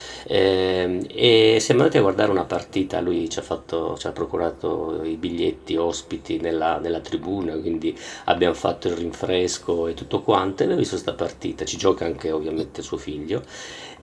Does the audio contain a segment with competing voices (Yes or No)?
No